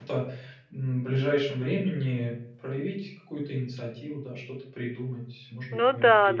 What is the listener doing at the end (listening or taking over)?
taking over